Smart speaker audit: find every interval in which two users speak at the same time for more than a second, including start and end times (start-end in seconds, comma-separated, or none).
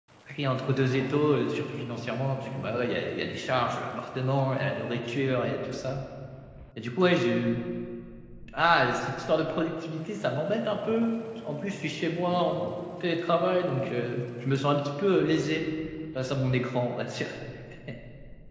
none